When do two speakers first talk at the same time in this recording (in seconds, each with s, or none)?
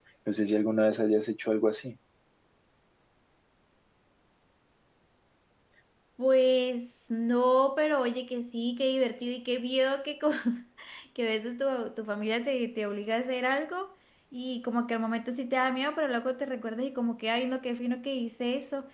none